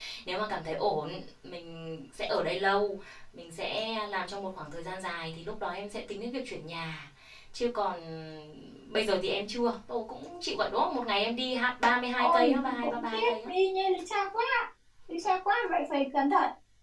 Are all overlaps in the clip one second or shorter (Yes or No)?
No